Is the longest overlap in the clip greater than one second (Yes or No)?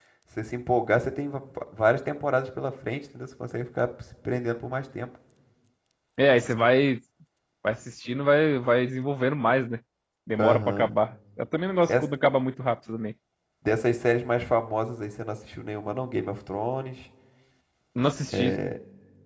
No